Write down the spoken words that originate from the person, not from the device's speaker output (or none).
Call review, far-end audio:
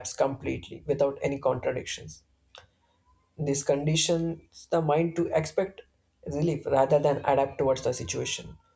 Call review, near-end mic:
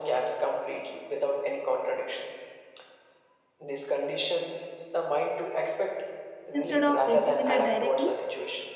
instead of facing it uh, directly